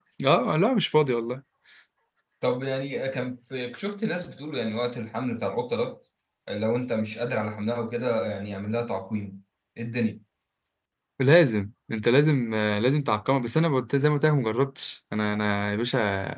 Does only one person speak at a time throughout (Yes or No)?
Yes